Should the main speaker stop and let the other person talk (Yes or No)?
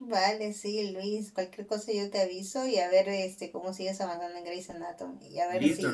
Yes